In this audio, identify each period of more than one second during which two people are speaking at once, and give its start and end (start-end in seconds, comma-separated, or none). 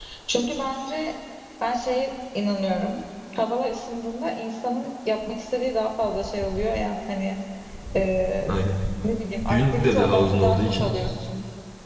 9.5-11.0